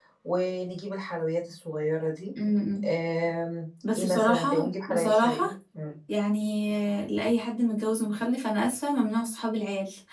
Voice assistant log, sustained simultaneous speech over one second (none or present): present